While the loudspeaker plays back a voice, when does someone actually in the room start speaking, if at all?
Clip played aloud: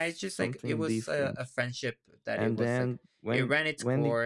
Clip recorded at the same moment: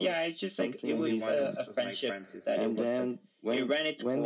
1 s

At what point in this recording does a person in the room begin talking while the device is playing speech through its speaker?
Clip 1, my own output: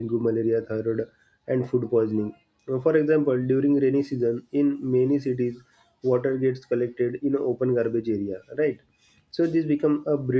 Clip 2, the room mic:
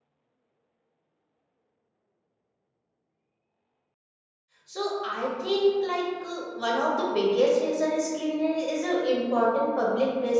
5 s

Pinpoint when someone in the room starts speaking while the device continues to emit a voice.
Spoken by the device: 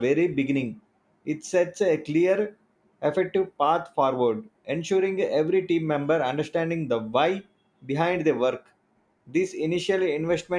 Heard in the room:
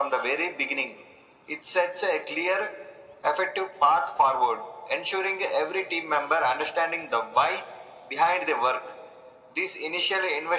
none

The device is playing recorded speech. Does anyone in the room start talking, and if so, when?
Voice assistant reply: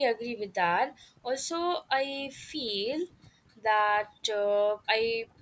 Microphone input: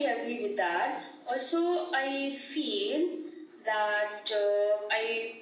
none

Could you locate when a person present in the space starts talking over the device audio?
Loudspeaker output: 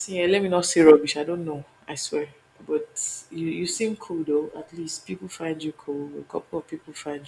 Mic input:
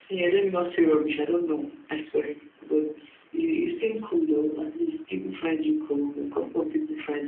none

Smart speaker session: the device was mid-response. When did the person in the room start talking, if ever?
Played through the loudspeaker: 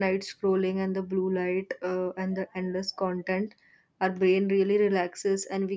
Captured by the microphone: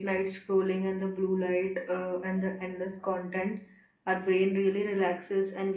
none

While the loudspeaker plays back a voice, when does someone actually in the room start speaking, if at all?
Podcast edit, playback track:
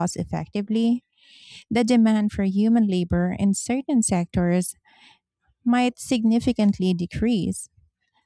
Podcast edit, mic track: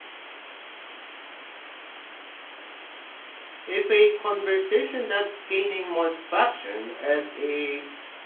4 s

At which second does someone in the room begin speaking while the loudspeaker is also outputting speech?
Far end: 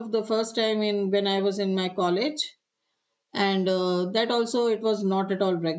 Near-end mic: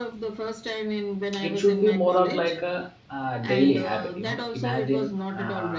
1 s

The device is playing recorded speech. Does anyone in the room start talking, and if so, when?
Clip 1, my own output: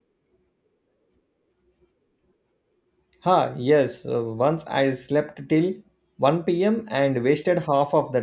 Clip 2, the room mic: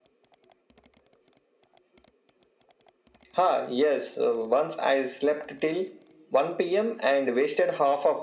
none

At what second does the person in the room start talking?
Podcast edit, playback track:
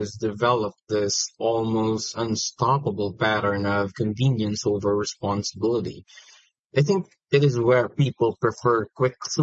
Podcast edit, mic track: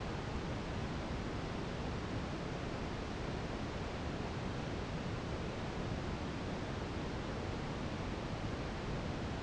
none

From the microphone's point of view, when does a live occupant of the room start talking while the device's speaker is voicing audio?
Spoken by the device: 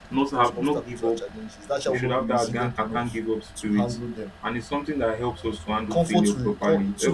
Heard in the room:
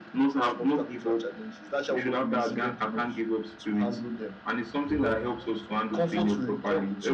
5 s

